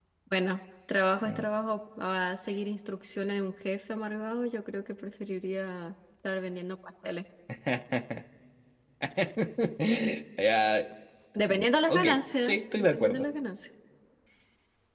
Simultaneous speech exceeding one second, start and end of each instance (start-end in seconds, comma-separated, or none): 11.9-13.3